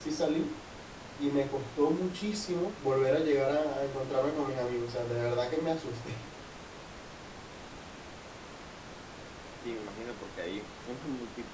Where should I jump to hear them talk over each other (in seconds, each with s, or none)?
none